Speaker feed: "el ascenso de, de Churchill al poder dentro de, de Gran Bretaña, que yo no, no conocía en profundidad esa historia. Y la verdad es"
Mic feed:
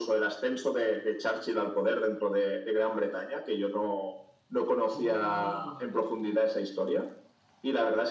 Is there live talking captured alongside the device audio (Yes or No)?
Yes